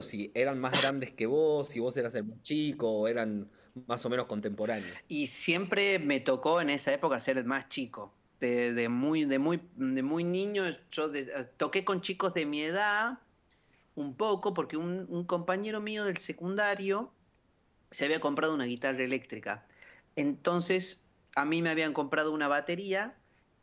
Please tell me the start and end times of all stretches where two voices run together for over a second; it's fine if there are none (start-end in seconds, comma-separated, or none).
none